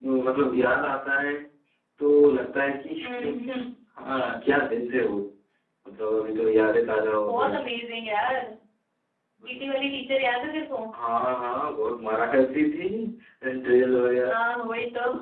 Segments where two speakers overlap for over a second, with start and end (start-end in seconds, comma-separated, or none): none